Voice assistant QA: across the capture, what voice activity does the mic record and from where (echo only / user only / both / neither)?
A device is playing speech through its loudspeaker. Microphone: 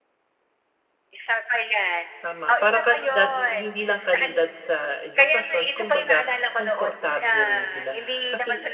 both